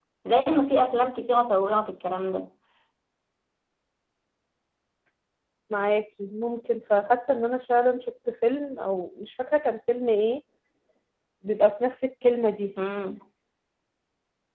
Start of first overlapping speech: none

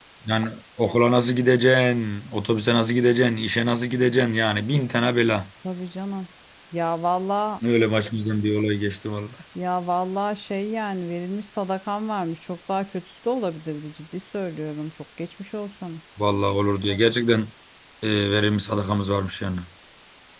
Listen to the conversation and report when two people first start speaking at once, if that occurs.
none

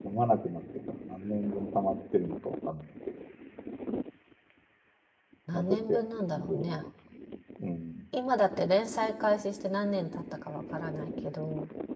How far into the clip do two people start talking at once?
5.5 s

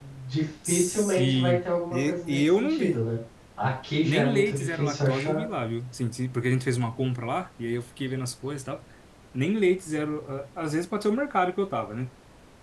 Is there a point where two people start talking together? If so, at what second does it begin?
0.7 s

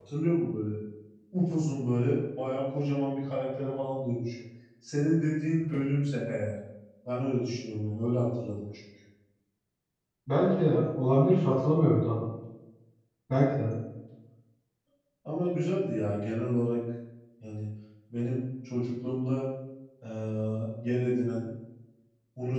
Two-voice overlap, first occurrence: none

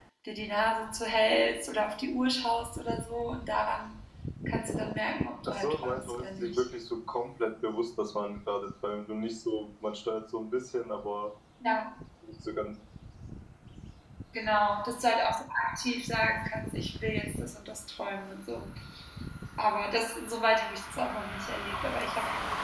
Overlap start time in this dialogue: 5.5 s

